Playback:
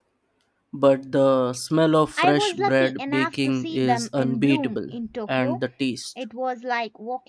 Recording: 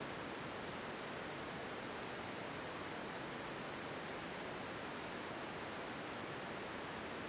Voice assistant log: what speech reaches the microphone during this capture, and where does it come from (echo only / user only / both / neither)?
neither